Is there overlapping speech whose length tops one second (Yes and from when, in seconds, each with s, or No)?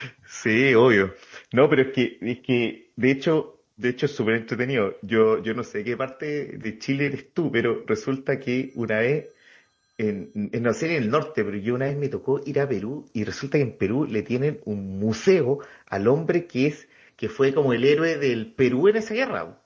No